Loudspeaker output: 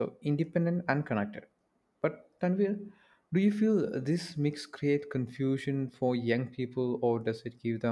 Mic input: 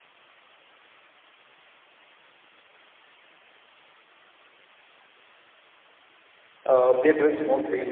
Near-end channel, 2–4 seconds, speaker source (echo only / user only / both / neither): neither